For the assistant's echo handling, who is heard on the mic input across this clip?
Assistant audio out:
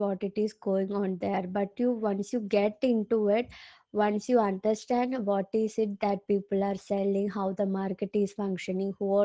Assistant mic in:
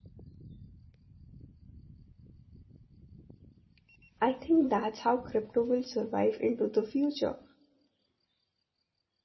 user only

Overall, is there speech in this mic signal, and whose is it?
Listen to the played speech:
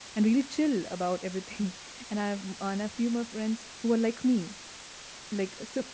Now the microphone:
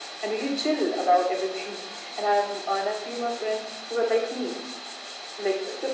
echo only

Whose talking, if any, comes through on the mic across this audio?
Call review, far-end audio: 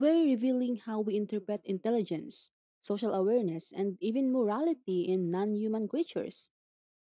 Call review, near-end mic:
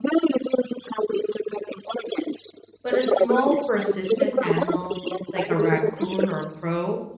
both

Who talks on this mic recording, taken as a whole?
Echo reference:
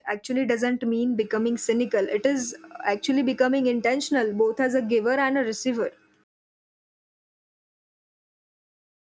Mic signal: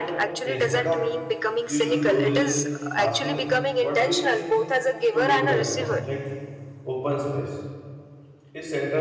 both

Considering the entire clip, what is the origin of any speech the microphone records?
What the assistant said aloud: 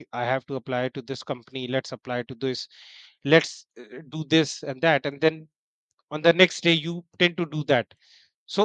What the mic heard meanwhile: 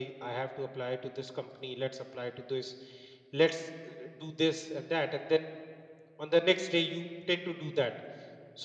echo only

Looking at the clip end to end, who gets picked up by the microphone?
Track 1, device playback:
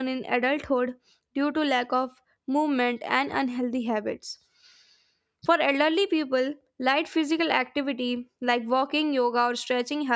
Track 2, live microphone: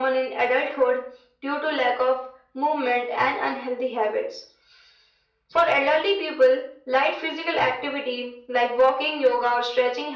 echo only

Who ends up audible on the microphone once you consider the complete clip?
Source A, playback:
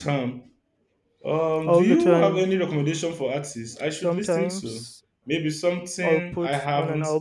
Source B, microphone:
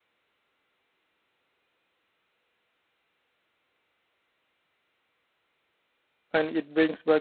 user only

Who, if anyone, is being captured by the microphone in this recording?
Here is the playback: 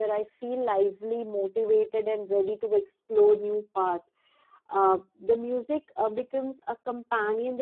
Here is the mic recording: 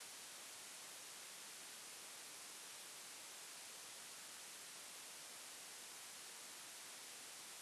neither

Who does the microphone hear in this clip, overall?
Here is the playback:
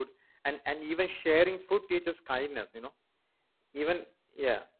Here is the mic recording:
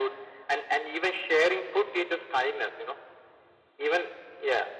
echo only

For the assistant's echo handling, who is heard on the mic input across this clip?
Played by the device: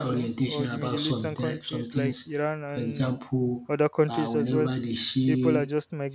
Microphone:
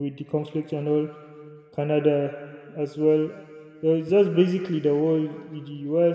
user only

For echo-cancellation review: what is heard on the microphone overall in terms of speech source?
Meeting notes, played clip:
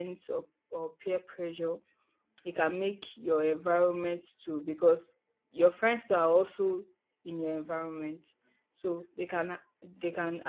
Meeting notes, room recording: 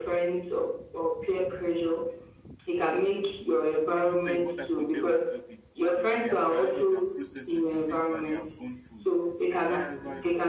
both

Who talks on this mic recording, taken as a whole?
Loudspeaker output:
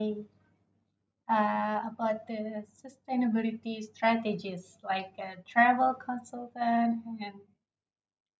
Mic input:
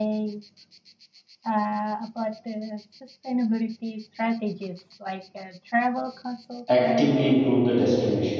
both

